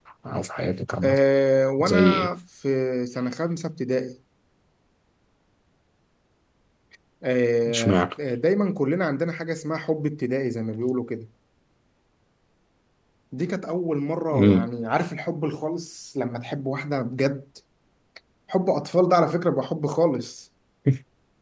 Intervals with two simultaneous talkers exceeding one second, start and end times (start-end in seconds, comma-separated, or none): none